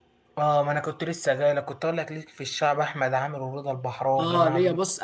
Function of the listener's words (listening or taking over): taking over